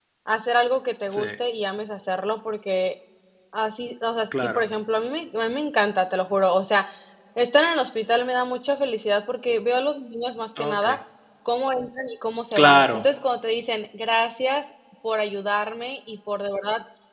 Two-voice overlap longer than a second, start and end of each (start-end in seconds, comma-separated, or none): none